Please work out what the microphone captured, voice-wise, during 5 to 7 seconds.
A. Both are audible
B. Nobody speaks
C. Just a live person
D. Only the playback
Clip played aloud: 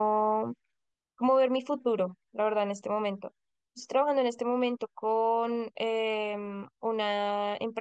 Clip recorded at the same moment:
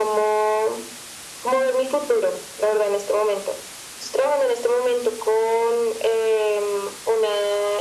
D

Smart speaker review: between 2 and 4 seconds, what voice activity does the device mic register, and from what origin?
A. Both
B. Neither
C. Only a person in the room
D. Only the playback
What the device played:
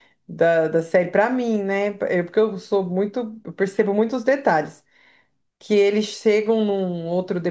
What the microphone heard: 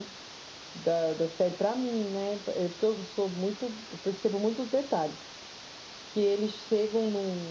D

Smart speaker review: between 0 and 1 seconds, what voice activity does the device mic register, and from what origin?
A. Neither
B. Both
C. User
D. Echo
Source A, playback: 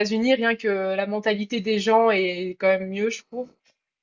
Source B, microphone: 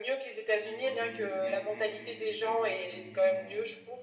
B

